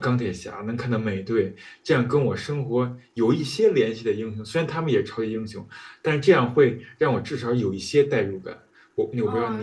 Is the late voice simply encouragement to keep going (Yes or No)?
No